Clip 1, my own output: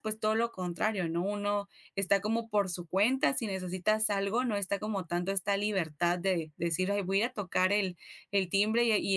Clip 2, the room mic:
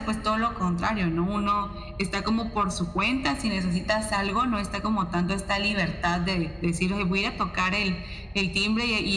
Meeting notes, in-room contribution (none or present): none